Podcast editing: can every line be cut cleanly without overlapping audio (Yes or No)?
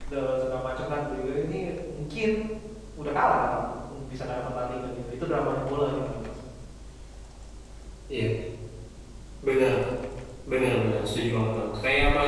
Yes